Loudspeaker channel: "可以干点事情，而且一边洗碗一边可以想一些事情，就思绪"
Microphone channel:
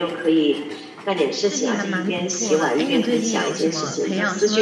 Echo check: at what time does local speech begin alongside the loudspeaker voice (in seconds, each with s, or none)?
1.4 s